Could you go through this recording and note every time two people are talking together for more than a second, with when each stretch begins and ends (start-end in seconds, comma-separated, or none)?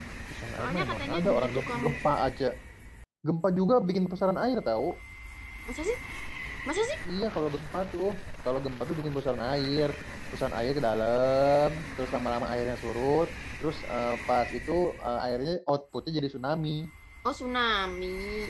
0.6-1.9